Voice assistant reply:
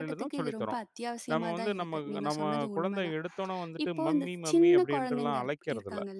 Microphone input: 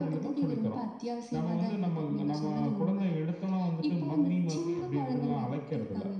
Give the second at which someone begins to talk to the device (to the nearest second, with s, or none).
none